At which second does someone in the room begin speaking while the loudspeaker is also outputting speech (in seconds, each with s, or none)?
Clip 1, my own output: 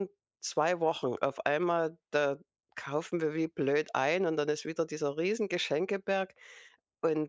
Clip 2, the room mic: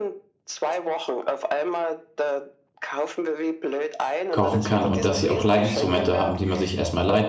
4.3 s